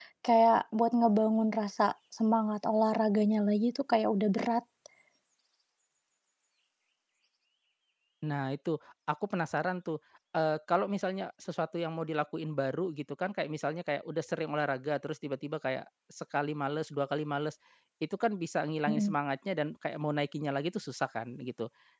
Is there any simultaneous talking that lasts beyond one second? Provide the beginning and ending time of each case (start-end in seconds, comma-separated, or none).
none